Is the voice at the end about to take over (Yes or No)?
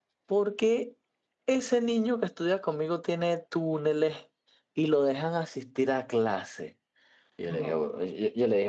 No